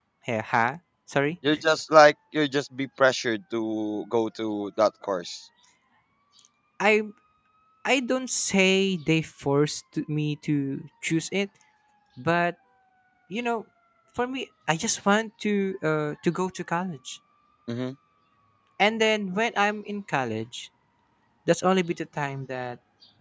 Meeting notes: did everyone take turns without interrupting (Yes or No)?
Yes